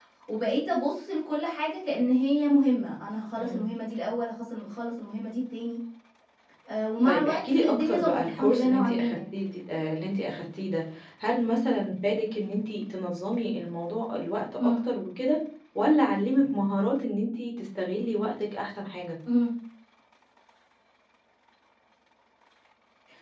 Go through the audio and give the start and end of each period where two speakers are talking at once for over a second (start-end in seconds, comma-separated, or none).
7.0-9.2